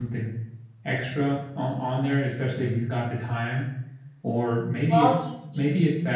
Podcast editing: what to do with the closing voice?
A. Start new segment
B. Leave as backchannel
B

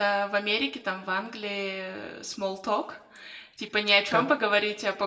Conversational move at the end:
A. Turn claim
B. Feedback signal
B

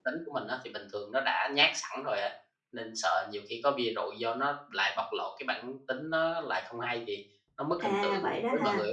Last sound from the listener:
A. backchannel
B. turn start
B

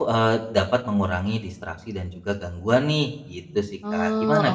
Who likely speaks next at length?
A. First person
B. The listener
B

